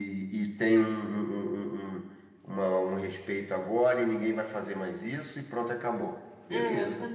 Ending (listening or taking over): taking over